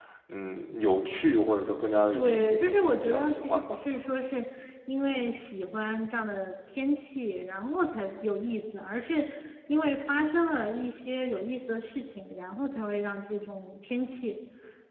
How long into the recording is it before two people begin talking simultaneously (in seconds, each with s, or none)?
2.1 s